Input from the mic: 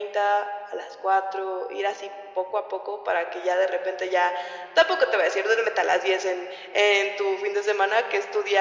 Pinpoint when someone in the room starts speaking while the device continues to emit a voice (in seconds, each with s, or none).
none